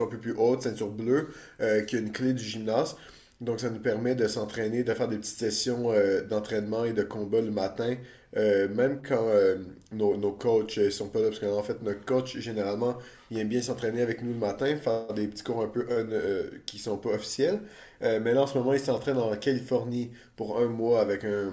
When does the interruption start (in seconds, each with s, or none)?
none